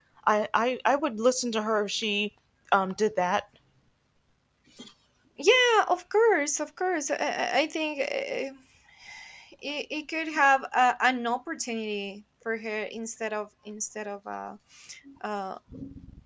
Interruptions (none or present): none